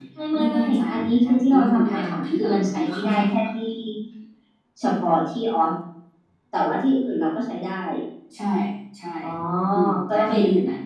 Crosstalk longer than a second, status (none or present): present